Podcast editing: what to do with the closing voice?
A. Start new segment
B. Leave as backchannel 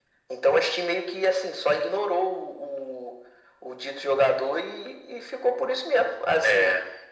B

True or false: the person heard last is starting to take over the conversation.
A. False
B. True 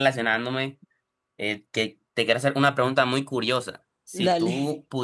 A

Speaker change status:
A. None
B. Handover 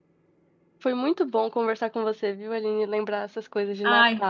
A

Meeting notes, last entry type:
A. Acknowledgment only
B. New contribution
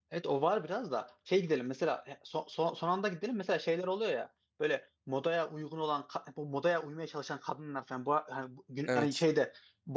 A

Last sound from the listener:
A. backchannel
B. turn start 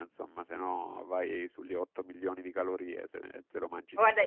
B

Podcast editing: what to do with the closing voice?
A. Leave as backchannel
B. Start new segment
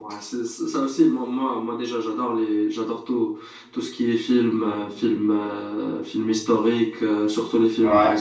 A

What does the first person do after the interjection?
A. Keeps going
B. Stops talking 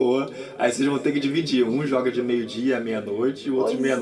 B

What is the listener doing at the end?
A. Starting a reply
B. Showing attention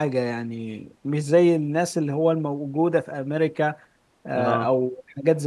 B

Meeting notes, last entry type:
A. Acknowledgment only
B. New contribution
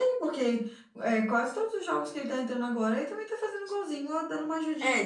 B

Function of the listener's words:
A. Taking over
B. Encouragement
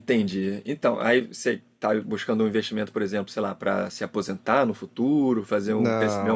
A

